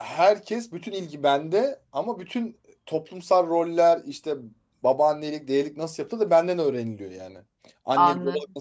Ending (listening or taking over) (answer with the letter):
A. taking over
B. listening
A